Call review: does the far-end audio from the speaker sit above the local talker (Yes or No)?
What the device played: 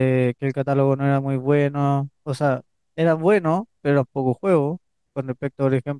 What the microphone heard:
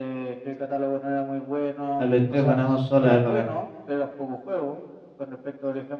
No